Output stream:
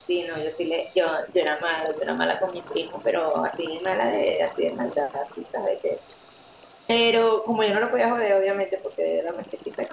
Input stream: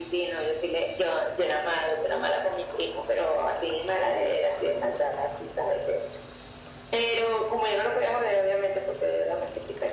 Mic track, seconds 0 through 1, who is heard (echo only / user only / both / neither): echo only